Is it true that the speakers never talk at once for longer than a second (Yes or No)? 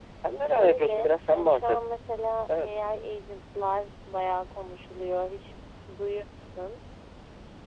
No